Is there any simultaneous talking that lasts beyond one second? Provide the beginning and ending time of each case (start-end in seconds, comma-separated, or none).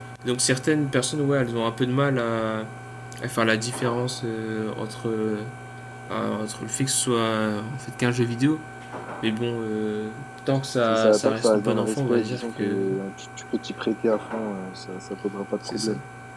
10.8-12.8